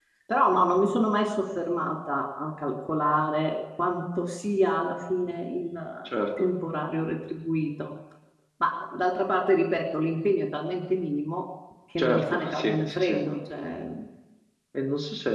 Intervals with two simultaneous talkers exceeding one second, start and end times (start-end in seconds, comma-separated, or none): 12.0-13.2